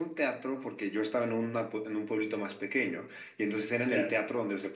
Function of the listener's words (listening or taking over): listening